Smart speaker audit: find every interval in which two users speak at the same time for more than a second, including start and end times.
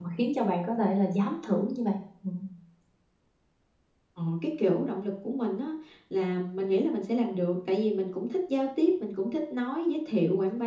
none

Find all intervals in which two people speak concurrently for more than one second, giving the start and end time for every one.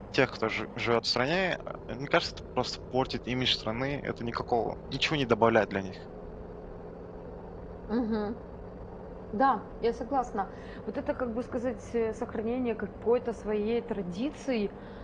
none

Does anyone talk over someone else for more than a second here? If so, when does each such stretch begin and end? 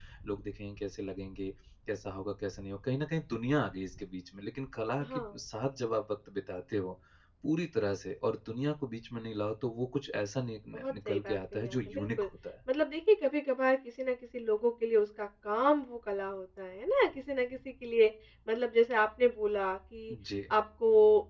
10.7-12.1

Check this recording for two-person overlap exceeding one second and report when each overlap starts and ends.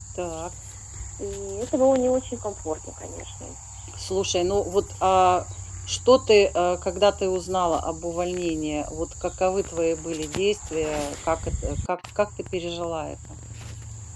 none

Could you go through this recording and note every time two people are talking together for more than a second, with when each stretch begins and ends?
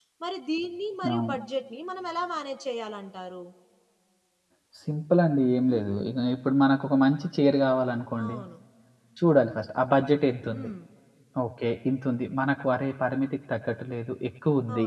none

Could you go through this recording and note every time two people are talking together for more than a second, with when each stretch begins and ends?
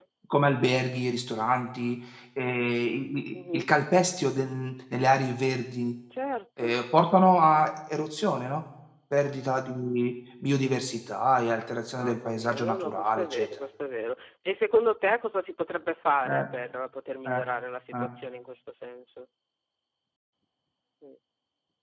11.9-13.5

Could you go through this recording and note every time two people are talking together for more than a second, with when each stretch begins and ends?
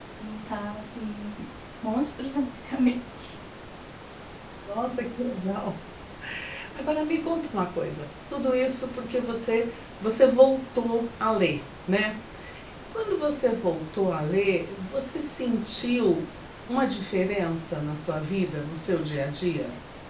none

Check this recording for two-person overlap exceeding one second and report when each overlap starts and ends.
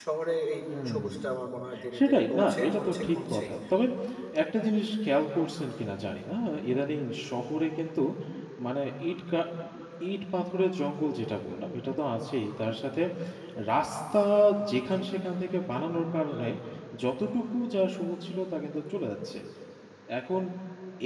2.0-3.5

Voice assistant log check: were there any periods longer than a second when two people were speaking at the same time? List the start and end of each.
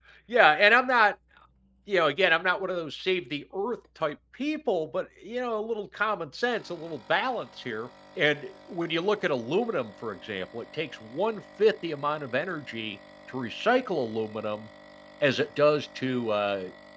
none

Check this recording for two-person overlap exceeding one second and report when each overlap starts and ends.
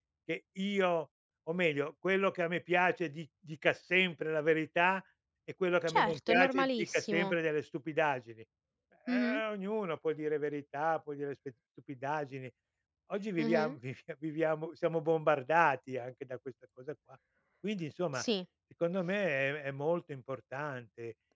5.9-7.4

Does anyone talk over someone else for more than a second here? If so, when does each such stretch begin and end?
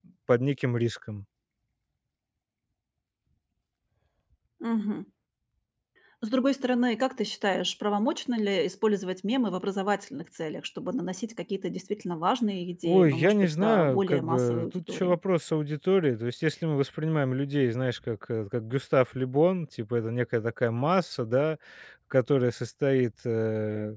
12.8-15.2

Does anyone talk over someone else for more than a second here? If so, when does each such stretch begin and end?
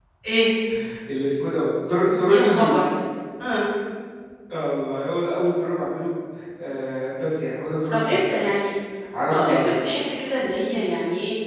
none

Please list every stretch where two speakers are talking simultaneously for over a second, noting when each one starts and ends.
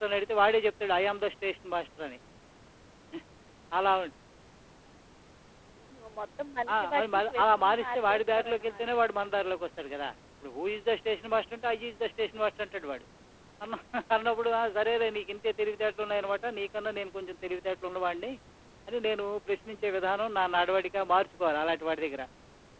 6.8-8.8

